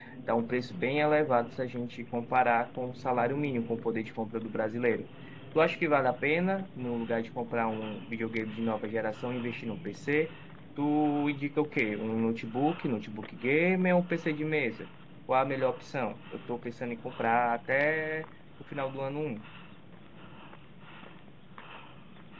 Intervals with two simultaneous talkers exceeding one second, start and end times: none

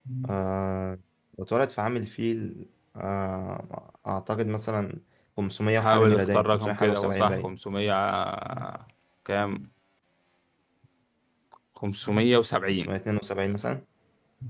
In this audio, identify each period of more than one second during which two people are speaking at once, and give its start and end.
5.8-7.5

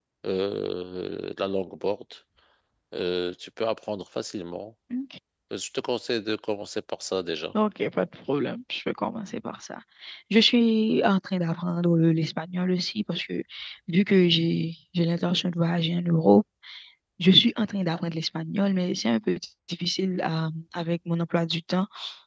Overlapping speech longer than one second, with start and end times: none

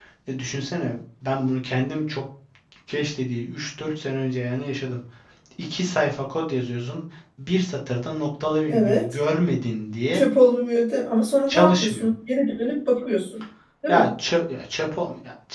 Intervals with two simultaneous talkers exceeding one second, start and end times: none

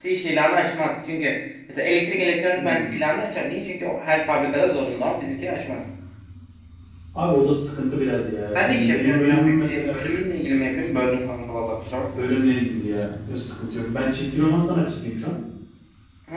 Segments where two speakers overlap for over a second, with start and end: 8.6-10.1

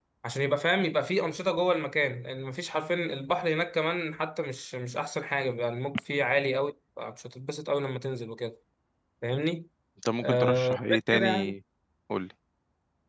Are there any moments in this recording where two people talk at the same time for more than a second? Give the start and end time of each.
10.2-11.5

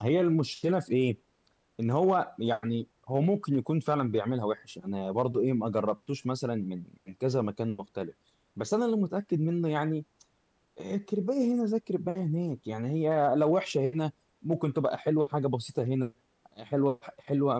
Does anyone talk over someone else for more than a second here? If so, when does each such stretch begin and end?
none

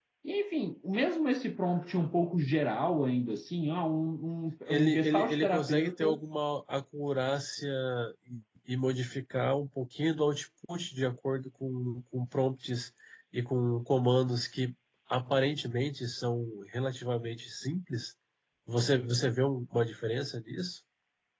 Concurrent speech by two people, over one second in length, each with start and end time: 4.7-6.2

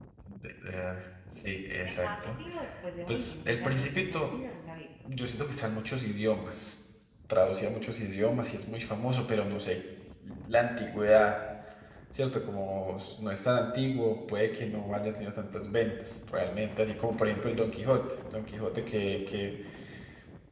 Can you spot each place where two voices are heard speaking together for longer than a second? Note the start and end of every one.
3.1-4.3

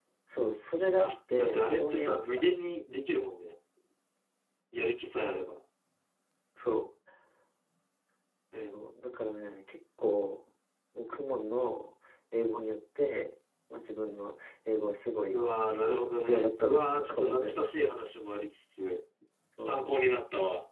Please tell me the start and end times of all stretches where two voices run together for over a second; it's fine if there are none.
1.0-2.4, 16.2-17.7

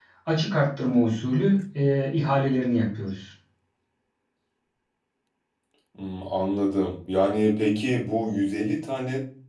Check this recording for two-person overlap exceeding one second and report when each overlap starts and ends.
none

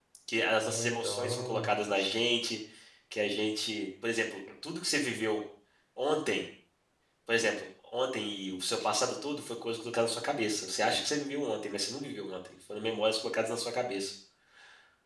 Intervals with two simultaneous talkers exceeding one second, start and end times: 0.6-2.1

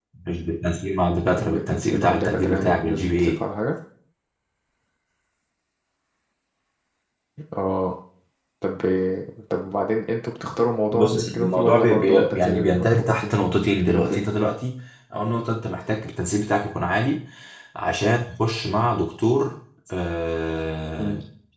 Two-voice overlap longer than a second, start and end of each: 1.3-3.4, 10.9-13.3

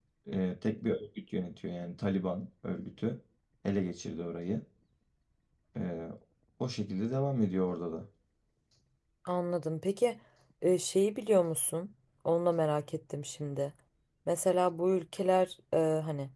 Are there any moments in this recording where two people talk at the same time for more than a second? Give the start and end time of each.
none

